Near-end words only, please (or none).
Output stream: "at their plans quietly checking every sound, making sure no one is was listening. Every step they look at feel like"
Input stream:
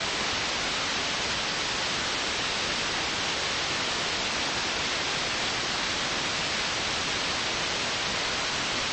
none